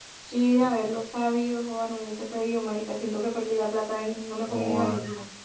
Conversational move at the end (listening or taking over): taking over